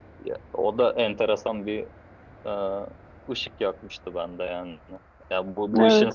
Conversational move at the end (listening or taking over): listening